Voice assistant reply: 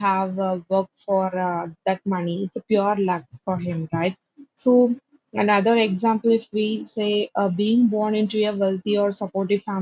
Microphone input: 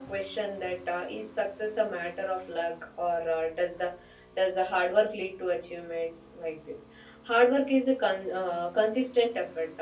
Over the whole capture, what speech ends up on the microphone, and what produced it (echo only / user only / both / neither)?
user only